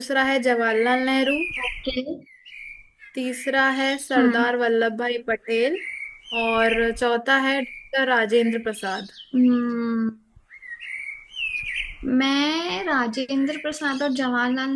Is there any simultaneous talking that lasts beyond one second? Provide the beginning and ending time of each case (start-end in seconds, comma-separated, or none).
none